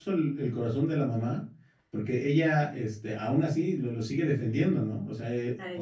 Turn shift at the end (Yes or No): No